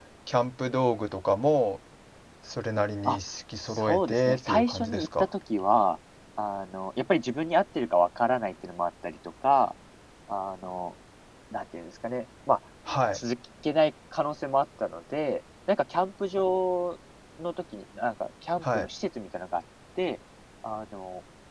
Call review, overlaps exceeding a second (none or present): present